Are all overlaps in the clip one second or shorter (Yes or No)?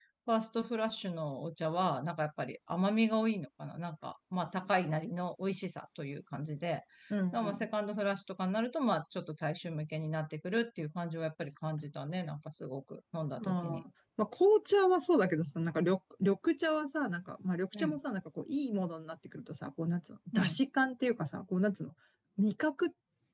Yes